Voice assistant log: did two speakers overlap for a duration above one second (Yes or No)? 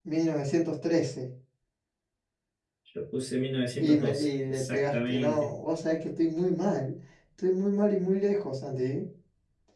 Yes